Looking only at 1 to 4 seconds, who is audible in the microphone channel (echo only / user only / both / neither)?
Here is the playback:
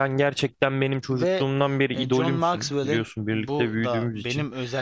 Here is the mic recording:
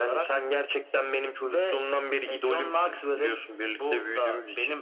echo only